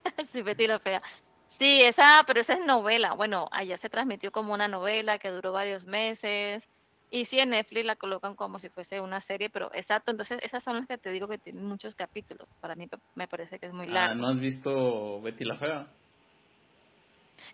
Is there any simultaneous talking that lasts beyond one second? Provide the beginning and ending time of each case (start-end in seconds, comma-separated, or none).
none